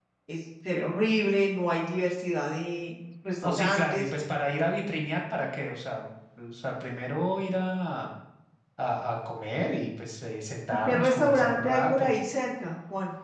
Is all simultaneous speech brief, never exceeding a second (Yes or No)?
No